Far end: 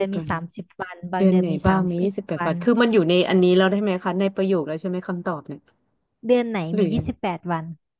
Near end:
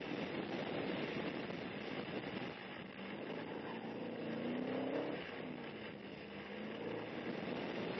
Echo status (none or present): none